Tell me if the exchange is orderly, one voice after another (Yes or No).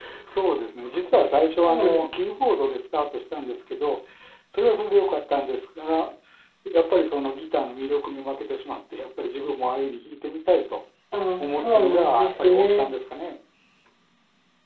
No